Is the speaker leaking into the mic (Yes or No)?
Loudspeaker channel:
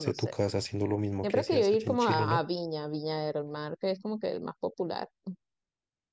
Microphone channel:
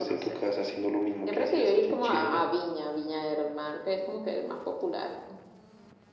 Yes